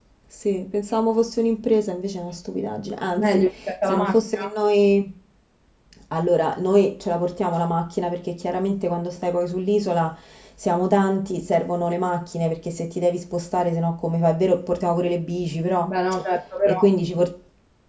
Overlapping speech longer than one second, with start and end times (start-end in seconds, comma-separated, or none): 3.2-4.5